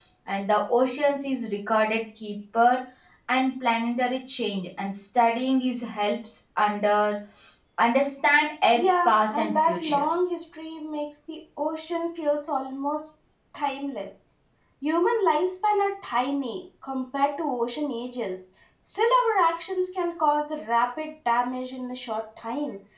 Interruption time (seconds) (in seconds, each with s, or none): 8.8 s